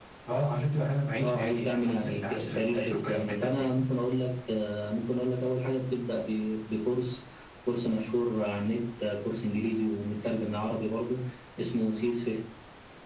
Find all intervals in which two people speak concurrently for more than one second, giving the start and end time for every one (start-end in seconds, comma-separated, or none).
1.2-3.8